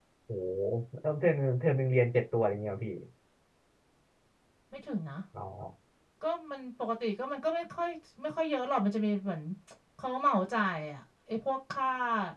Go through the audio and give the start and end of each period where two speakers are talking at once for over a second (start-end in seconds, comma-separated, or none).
none